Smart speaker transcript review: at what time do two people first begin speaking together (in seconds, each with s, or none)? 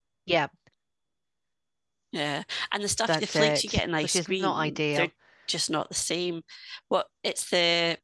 3.1 s